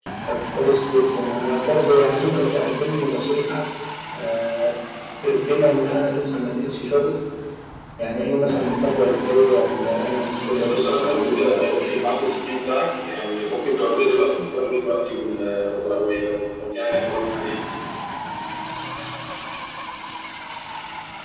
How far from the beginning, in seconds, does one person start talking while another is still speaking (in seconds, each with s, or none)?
10.7 s